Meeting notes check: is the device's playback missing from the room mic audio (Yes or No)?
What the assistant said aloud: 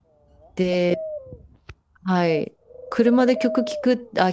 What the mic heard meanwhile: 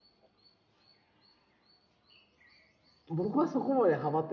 Yes